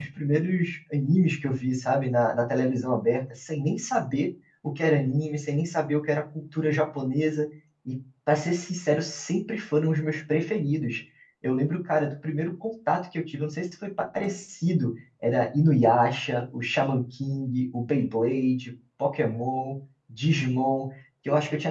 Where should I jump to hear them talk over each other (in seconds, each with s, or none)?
none